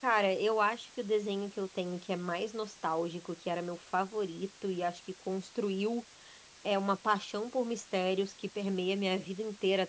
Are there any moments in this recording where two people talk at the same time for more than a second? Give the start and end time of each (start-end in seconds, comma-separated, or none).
none